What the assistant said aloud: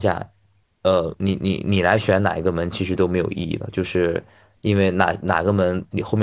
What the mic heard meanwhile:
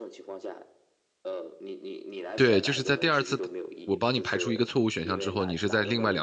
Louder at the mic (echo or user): user